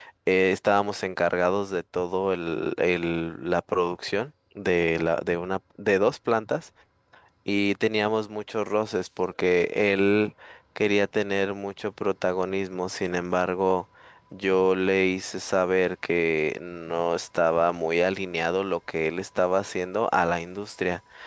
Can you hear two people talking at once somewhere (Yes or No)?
No